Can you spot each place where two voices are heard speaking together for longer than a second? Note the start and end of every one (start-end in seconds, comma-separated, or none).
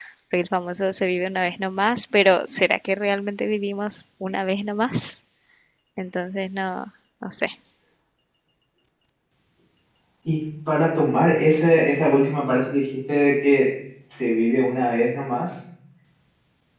none